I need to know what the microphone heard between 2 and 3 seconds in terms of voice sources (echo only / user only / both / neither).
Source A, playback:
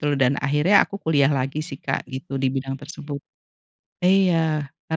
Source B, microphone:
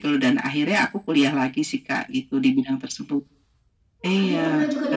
echo only